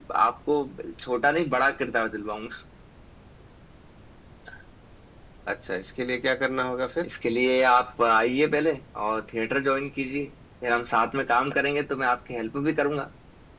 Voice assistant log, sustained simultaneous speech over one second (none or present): none